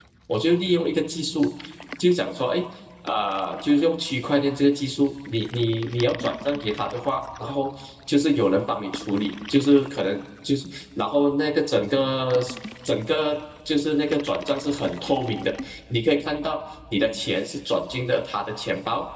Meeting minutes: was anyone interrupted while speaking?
No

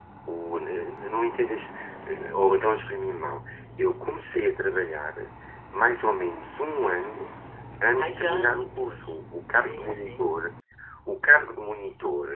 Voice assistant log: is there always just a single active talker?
No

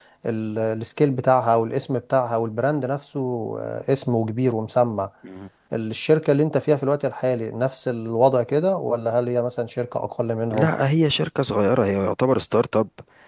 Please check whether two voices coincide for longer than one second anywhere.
No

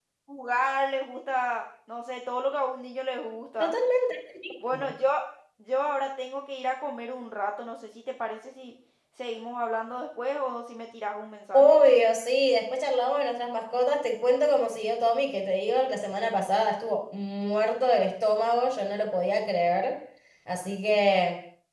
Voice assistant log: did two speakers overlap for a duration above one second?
No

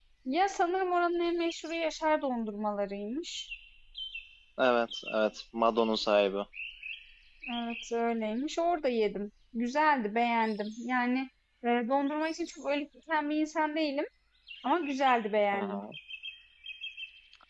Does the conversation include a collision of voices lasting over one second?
No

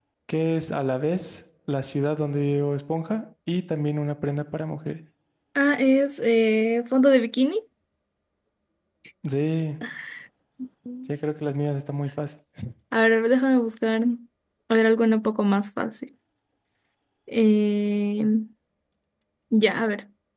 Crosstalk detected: No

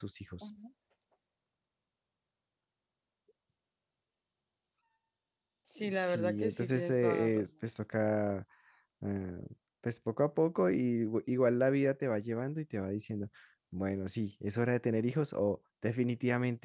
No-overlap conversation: No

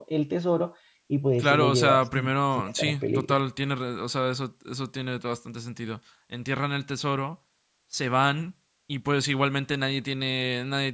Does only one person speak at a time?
No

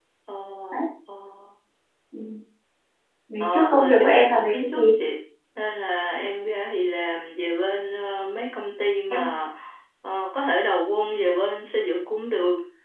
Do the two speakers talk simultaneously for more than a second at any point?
Yes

